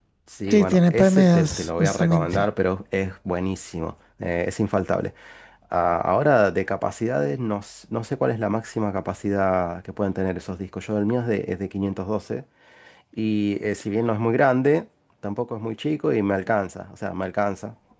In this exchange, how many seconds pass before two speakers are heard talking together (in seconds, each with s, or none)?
0.5 s